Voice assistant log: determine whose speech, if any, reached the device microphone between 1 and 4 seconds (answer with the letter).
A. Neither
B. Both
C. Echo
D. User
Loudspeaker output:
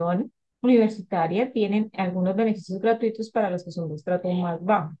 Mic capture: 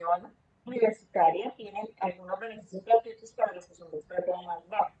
C